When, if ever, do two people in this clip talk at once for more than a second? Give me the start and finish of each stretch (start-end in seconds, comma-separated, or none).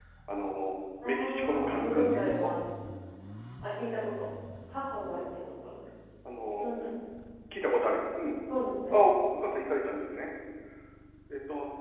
1.0-2.5